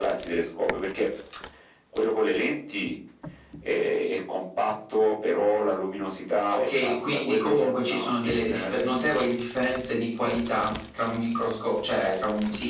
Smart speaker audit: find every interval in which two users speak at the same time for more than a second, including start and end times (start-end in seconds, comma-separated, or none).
6.5-8.8